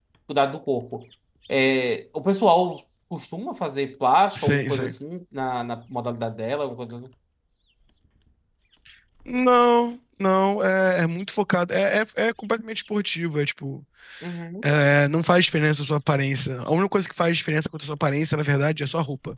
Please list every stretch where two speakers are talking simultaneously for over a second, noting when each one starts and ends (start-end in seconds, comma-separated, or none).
none